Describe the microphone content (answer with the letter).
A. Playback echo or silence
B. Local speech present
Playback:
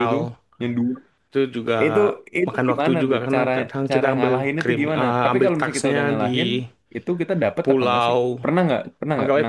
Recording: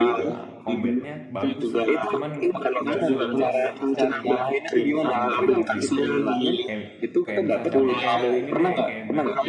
B